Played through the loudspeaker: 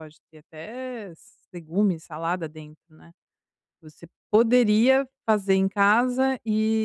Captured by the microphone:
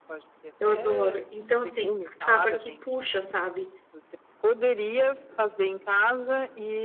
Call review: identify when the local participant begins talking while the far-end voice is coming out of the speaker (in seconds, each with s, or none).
0.6 s